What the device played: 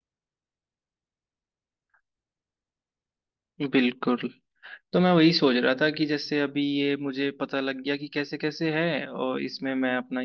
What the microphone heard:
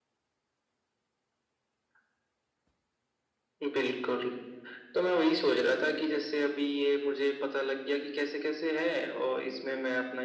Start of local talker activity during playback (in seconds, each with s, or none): none